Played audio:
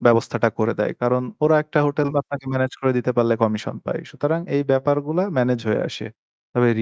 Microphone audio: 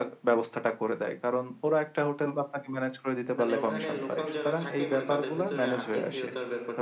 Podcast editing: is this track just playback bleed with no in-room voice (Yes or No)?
No